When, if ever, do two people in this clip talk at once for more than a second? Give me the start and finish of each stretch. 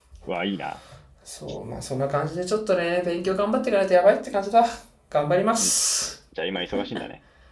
none

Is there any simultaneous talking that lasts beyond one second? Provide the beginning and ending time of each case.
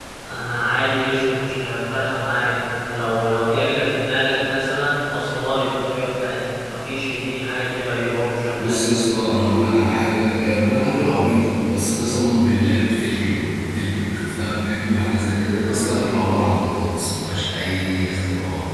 none

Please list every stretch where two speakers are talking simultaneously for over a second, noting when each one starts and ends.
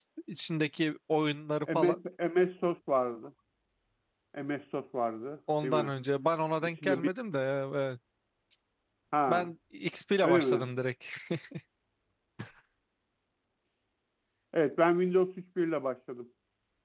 none

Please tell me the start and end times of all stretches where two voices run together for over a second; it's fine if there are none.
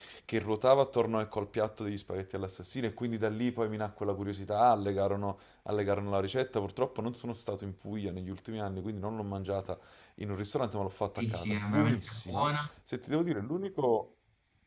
11.2-12.5

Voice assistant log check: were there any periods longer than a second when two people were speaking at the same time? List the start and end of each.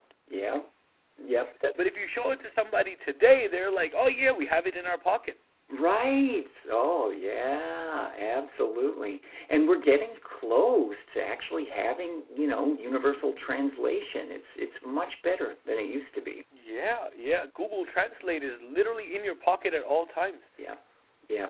none

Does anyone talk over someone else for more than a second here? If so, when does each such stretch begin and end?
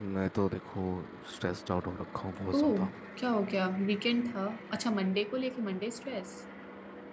none

